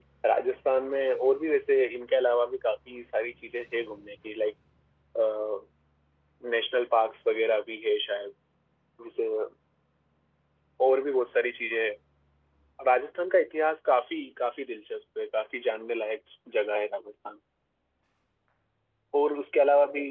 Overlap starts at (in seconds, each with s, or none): none